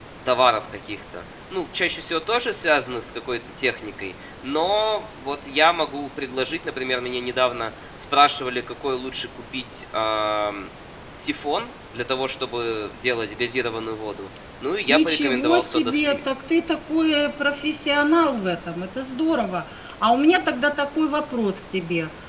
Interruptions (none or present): present